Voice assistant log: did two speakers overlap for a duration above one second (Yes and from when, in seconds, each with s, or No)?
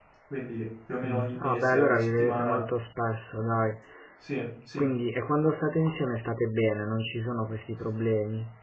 Yes, from 1.0 s